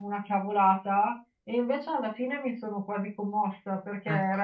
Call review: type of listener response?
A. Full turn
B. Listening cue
B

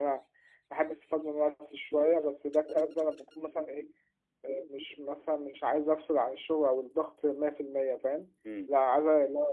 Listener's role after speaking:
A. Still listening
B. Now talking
A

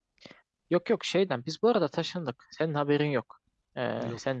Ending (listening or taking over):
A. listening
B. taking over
A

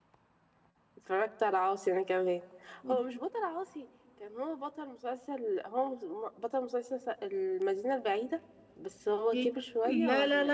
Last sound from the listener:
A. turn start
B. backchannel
A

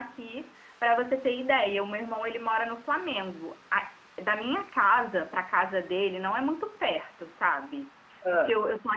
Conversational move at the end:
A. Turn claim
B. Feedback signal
B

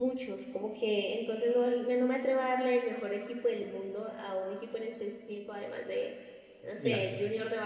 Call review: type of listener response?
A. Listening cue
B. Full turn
A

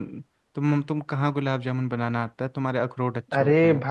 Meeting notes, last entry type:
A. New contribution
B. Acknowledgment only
A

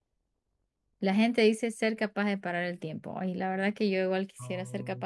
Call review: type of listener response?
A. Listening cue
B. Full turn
A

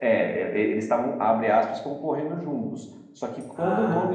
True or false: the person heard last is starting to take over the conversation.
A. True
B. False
B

